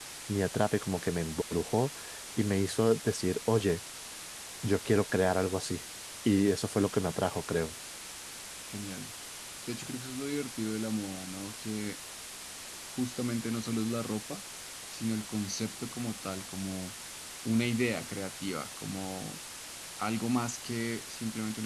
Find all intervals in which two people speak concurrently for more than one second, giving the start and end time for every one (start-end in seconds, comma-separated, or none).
none